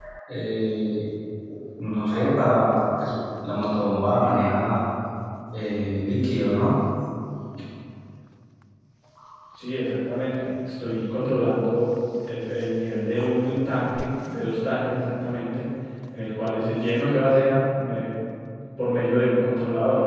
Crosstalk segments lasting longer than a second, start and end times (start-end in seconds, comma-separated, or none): none